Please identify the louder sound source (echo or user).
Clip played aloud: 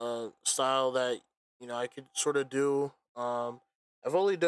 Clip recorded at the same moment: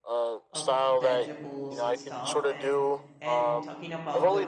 echo